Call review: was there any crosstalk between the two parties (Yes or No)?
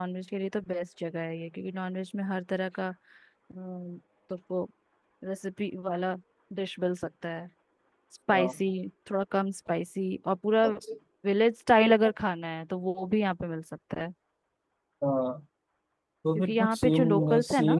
Yes